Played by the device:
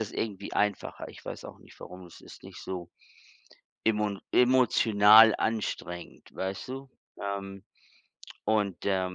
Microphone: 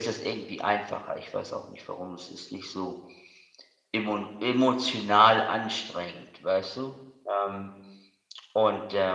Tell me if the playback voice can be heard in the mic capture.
Yes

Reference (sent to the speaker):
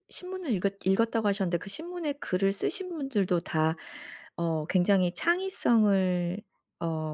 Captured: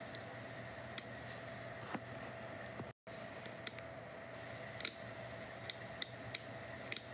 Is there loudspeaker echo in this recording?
No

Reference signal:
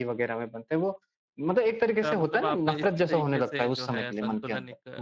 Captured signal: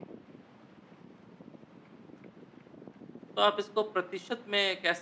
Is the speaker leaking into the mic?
No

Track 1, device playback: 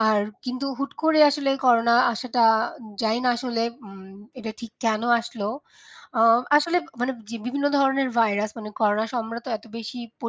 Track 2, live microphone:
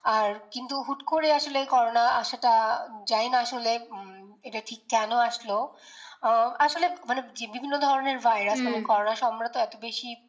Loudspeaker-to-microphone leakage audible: Yes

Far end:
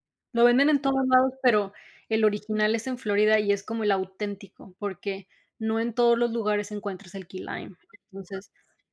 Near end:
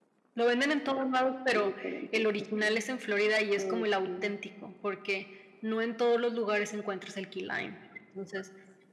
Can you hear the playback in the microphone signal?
Yes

